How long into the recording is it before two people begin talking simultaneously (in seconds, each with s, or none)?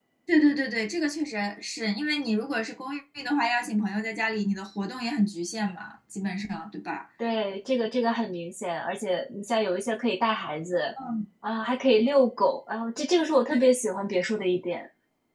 none